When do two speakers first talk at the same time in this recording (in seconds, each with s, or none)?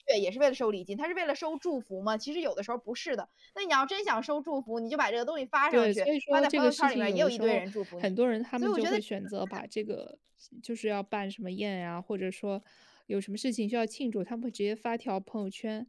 5.7 s